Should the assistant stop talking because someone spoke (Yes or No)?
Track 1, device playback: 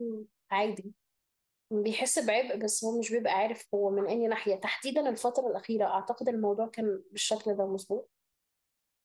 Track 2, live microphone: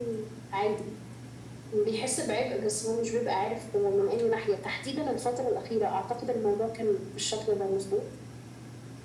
No